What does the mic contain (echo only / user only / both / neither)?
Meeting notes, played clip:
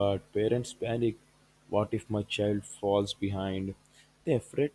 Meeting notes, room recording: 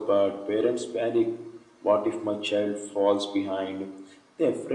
echo only